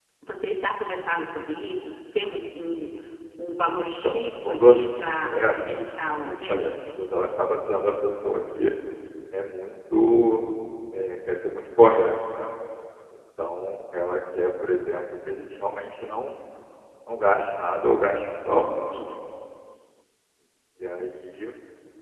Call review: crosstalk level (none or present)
present